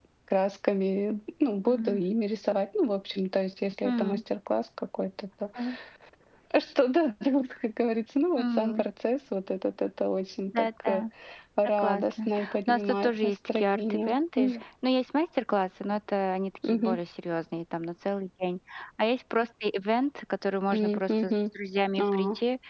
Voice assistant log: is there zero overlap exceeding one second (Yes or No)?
No